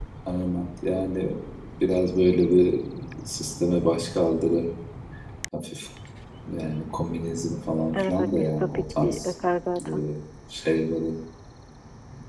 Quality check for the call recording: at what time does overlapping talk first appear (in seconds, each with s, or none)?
7.9 s